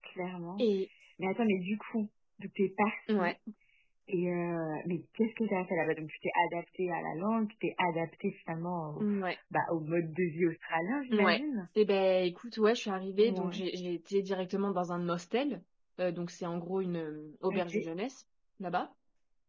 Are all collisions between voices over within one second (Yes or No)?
Yes